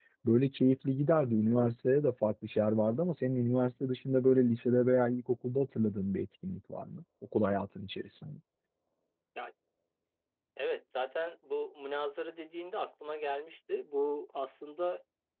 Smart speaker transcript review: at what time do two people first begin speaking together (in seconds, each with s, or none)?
none